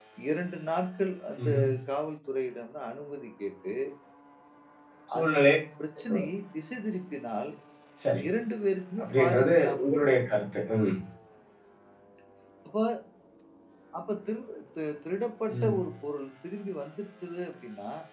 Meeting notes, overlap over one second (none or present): present